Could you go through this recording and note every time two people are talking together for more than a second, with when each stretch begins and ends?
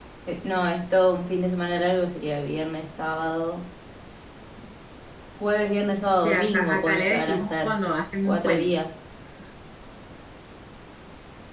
6.2-7.8

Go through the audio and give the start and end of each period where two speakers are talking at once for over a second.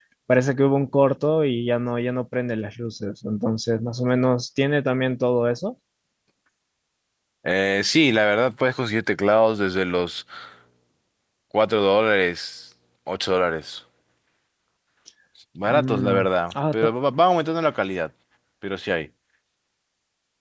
15.7-16.9

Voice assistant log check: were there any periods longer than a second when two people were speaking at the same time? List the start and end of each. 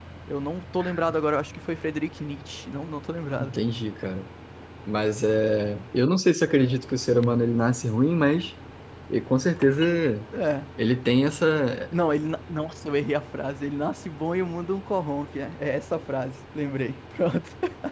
none

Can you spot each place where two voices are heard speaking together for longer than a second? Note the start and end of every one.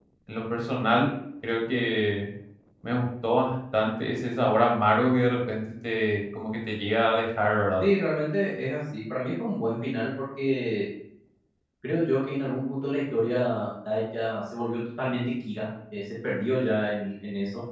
none

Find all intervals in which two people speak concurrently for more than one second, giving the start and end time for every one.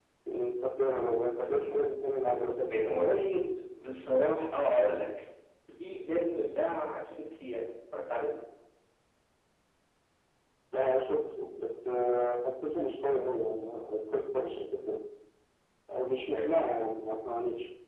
none

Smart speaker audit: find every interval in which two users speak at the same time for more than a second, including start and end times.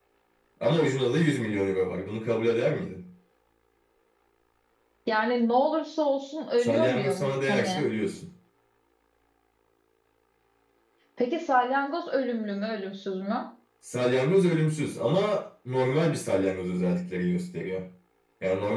6.6-7.9

